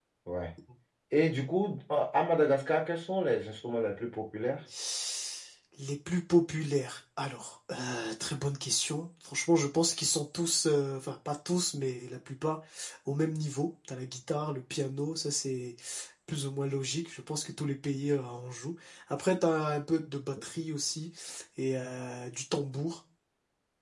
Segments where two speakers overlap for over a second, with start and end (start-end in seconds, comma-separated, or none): none